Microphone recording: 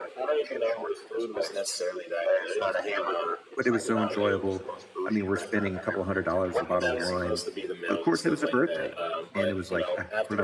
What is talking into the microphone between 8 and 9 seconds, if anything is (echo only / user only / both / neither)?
both